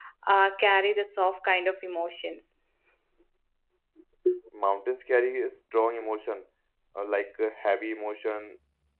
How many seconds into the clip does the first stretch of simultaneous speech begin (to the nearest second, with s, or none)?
none